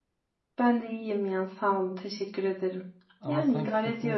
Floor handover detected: Yes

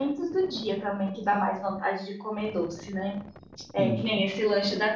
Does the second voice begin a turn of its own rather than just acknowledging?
No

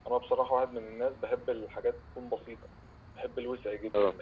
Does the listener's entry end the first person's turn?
No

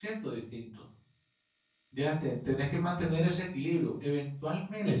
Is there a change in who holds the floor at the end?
Yes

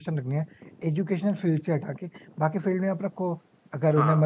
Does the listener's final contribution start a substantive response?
No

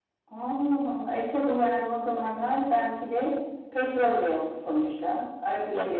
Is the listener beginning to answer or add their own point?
Yes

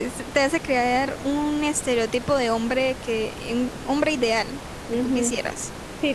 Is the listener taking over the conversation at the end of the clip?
Yes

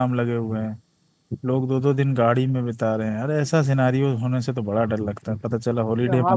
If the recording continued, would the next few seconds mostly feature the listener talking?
Yes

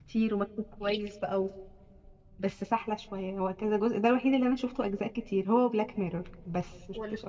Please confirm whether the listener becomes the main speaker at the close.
Yes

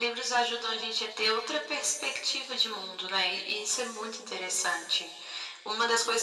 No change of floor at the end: No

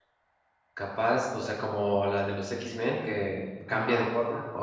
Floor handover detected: Yes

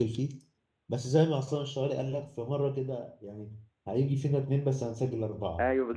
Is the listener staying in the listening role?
No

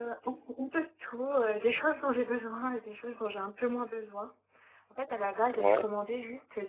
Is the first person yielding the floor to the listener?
No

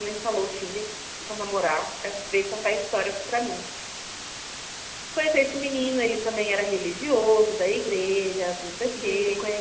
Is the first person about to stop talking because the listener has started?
Yes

